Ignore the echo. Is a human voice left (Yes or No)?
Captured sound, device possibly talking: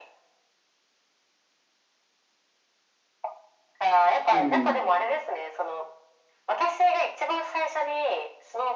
Yes